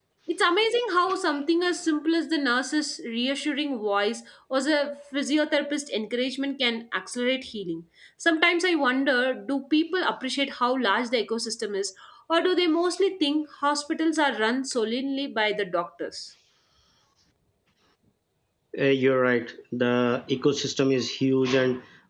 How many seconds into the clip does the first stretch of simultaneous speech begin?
none

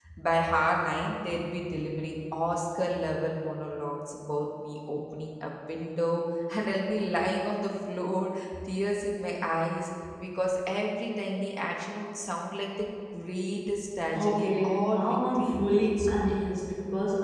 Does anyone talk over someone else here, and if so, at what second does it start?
14.1 s

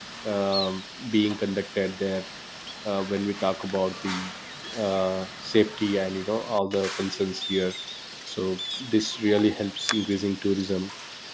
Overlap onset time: none

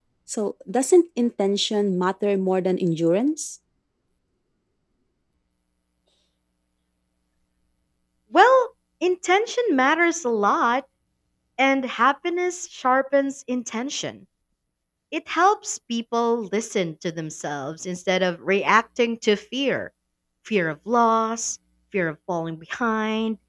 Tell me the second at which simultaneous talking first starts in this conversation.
none

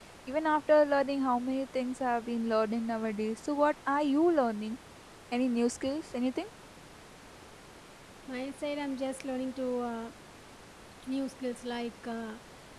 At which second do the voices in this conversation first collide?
none

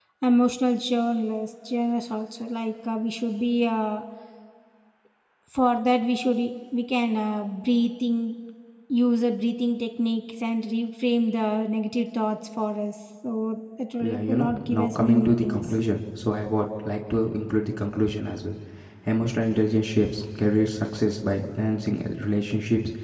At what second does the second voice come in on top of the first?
14.0 s

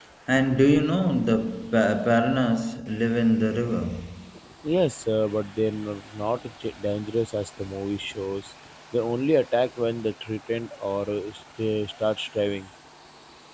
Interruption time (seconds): none

